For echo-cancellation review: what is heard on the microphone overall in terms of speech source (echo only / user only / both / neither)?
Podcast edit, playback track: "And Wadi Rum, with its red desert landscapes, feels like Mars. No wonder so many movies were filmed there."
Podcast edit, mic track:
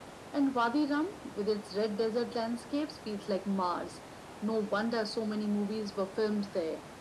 echo only